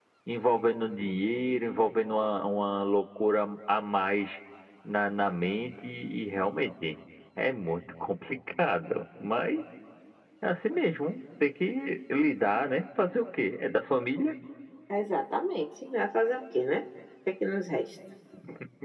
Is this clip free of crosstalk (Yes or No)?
Yes